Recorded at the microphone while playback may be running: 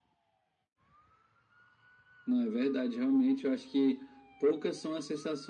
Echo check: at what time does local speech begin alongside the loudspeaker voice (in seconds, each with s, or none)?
none